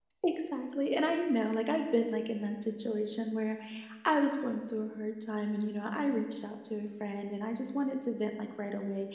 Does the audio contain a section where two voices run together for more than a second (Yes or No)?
No